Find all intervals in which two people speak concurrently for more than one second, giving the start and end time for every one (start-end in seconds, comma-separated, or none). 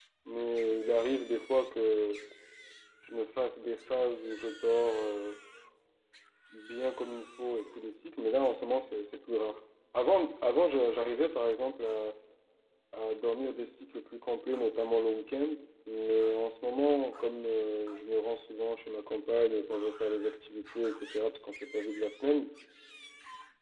none